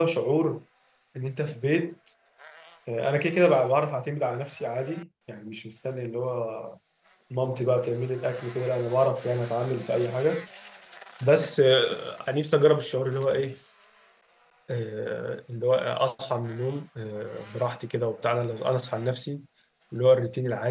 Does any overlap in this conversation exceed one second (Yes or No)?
No